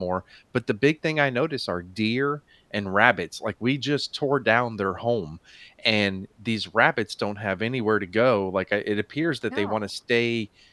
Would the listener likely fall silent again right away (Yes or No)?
Yes